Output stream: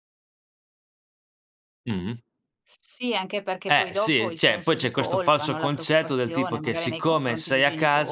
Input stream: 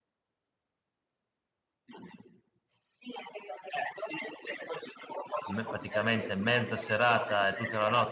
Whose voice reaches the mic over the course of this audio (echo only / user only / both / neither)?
both